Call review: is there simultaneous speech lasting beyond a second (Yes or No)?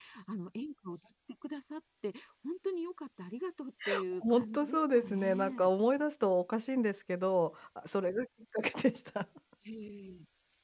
Yes